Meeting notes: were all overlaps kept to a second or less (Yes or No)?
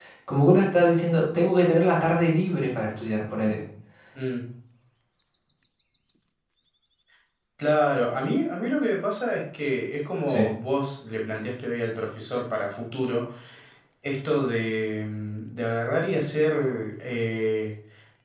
Yes